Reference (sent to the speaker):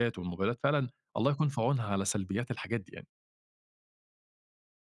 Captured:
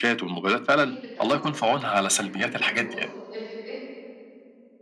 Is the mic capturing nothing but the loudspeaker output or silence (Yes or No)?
No